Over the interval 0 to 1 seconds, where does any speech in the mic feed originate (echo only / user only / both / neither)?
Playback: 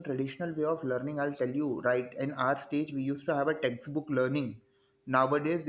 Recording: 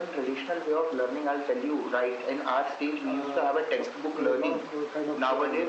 echo only